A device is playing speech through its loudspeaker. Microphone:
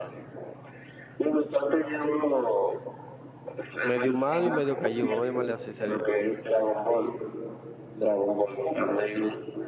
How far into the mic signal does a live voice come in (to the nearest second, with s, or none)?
4 s